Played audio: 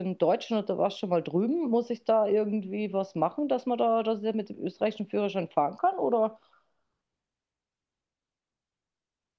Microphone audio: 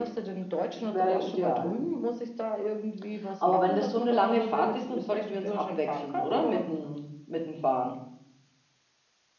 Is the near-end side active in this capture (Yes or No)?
Yes